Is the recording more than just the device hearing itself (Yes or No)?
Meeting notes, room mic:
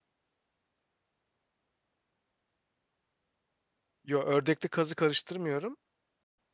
Yes